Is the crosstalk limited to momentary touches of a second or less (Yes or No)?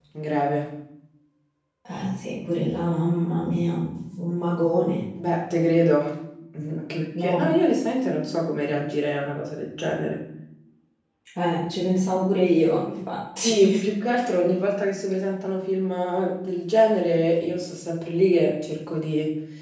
Yes